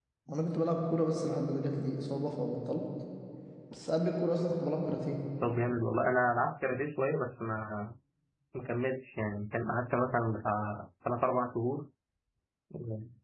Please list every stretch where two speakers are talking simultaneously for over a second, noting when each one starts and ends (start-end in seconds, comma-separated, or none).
none